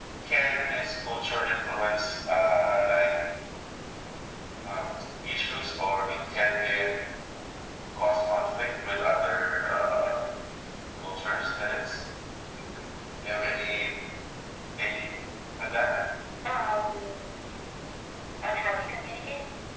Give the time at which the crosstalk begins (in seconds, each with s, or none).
none